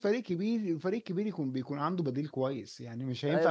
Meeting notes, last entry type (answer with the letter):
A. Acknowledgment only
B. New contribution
B